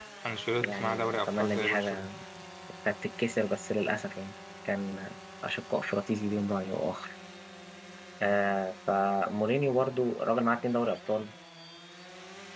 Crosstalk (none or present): present